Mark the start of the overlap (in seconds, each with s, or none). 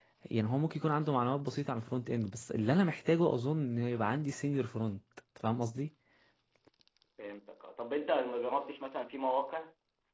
none